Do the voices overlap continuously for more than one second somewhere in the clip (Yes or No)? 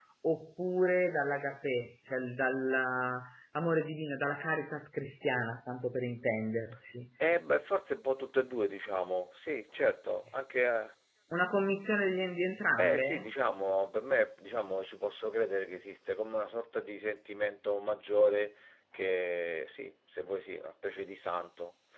No